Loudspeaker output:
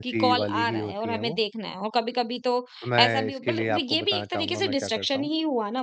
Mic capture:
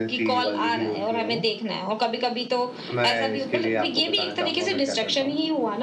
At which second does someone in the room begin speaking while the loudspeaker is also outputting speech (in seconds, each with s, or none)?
none